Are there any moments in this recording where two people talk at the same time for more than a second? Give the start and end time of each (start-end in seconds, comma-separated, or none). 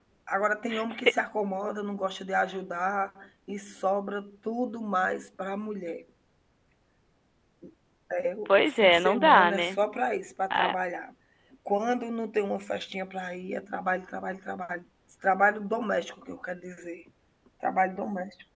8.5-9.8